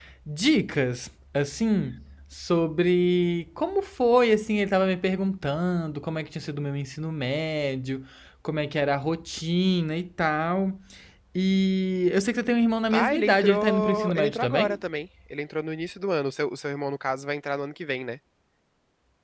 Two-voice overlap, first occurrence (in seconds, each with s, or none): 12.9 s